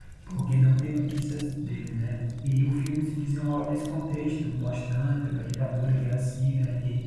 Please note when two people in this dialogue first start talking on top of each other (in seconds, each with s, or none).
none